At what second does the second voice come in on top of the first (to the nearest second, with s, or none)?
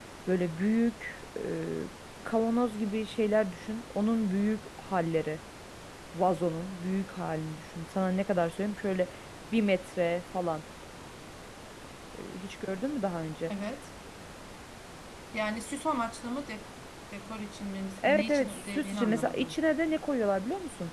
18 s